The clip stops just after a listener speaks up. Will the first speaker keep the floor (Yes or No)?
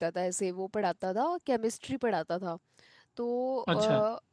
Yes